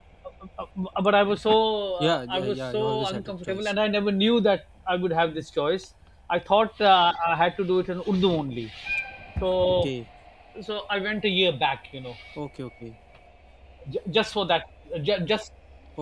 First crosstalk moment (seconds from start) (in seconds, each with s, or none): 2.0 s